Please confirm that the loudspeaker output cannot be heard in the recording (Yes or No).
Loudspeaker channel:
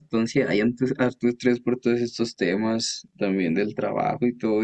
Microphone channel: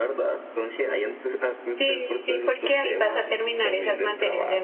No